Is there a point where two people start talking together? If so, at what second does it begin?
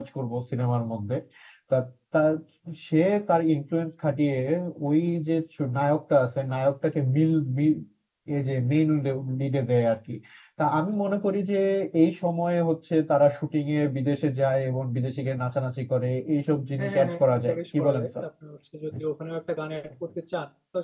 16.8 s

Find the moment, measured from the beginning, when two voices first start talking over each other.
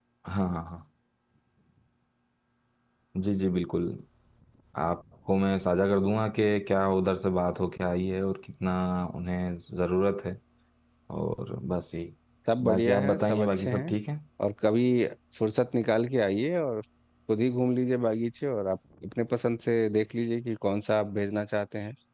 12.7 s

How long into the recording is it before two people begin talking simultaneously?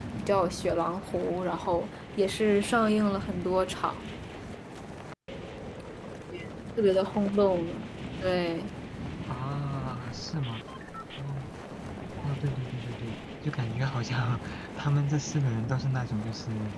none

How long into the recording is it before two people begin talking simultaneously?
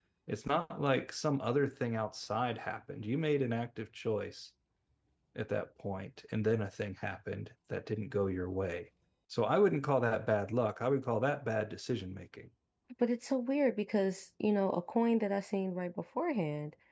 none

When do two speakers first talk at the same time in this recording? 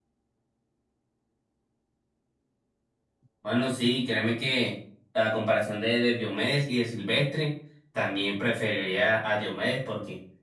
none

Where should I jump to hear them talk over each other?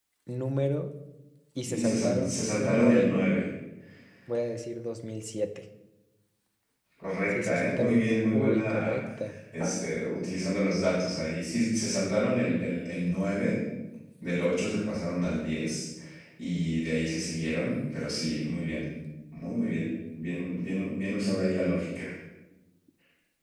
1.6 s

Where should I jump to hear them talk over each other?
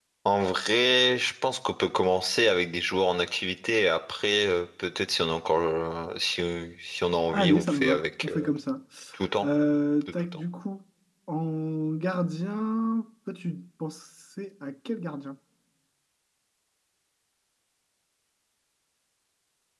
7.3 s

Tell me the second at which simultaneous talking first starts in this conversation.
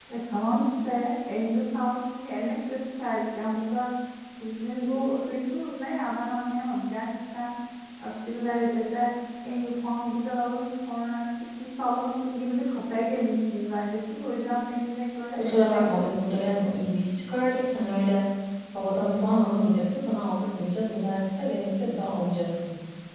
15.4 s

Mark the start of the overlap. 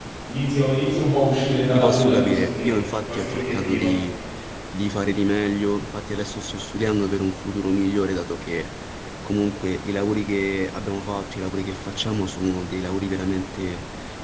1.7 s

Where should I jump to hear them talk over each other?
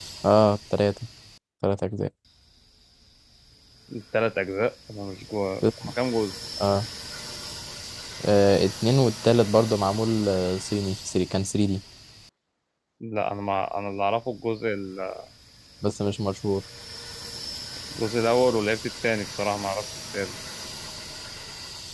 none

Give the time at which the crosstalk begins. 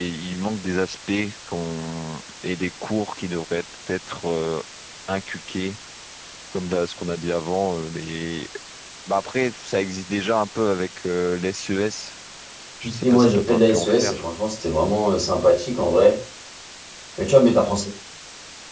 12.8 s

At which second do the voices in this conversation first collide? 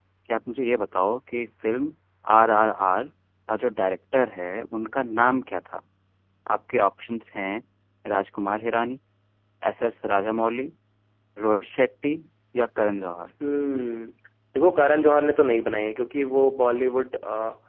none

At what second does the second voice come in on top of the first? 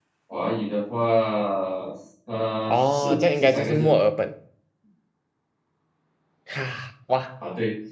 2.7 s

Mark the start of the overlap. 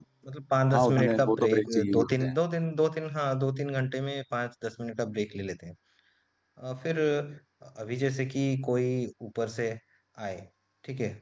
0.7 s

